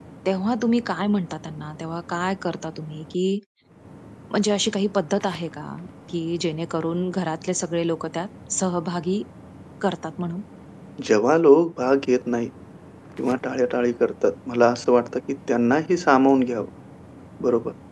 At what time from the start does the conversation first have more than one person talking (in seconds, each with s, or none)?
none